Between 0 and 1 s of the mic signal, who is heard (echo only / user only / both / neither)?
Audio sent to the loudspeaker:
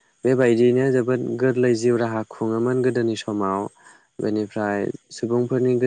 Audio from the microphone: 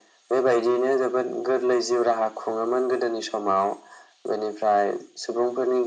echo only